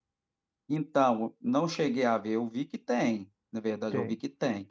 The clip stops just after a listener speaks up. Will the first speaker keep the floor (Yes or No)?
Yes